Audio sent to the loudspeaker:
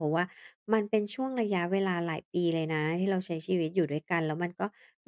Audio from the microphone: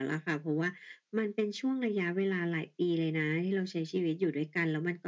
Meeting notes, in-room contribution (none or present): none